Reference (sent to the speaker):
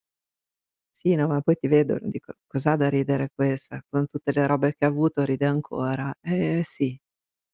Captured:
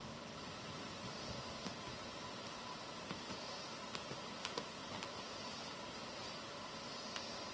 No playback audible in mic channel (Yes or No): Yes